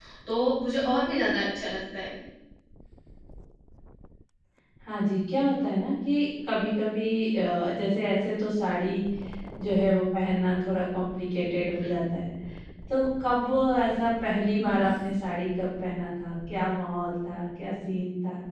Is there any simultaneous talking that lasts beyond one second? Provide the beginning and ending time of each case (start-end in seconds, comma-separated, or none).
none